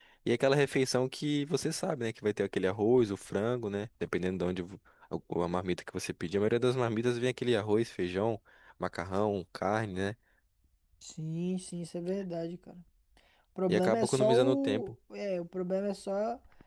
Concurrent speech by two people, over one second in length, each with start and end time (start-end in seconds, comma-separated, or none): 13.7-14.9